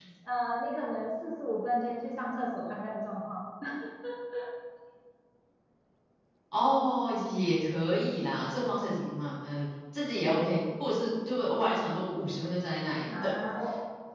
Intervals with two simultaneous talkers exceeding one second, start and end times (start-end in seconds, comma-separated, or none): none